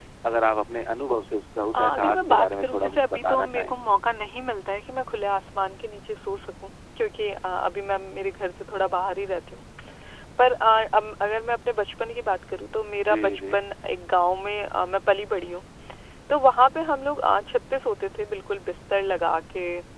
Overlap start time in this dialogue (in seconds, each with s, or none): 1.8 s